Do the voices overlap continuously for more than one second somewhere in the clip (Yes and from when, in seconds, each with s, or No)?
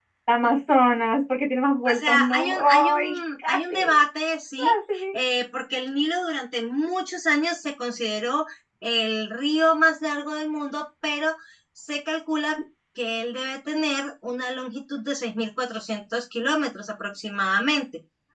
Yes, from 1.9 s